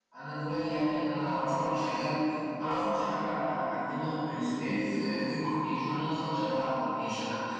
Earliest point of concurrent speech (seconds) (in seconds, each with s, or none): none